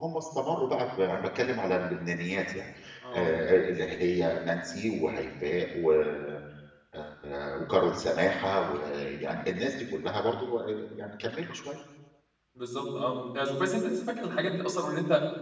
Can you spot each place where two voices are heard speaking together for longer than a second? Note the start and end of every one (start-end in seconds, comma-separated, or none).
none